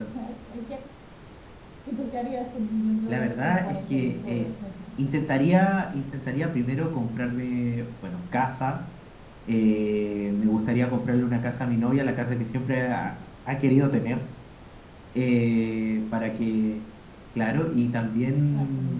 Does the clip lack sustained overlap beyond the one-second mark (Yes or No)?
No